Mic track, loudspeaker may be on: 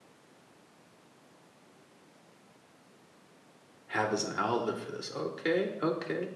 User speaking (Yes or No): Yes